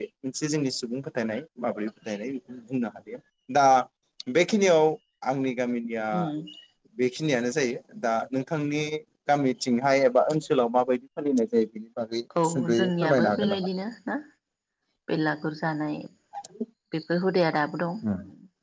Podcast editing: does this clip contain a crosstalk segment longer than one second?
Yes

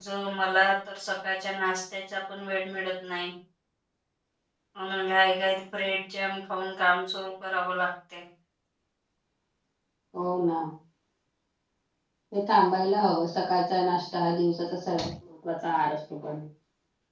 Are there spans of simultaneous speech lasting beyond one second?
No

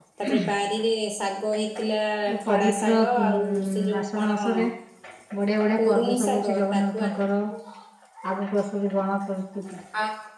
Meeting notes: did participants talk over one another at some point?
Yes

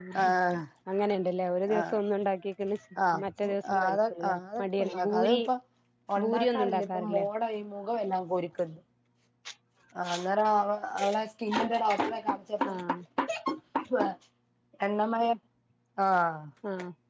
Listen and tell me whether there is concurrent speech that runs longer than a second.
Yes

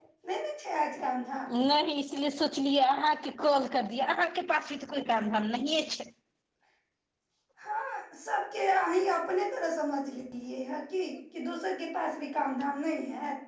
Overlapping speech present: No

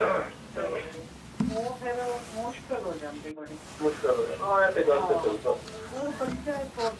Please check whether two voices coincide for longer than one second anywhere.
No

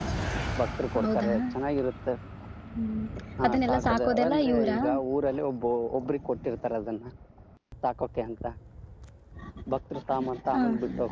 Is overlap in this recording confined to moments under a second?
No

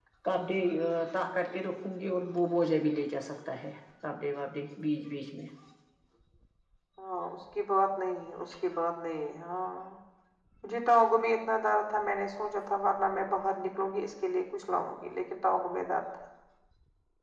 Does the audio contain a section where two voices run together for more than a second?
No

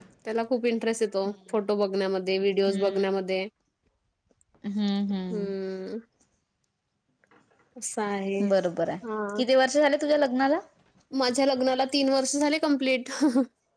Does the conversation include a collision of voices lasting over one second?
No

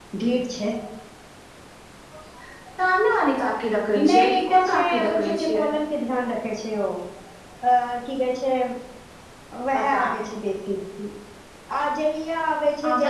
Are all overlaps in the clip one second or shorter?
No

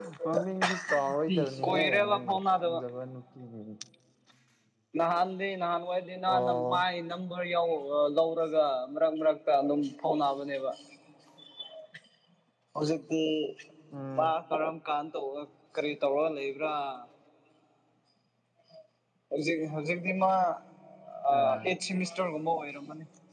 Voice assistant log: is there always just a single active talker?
No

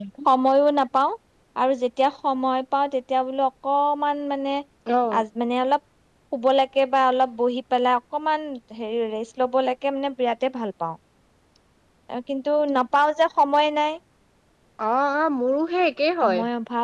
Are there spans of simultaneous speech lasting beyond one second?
No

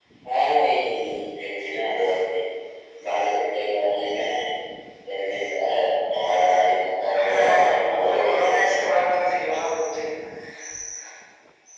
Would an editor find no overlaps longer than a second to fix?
No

